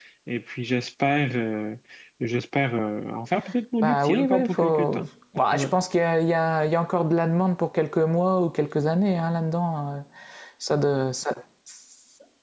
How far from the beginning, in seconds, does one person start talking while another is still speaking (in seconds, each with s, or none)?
3.8 s